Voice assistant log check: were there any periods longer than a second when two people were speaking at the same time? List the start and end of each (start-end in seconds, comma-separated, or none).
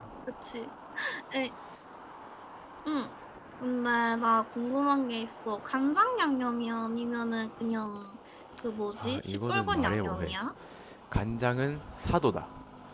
8.9-10.3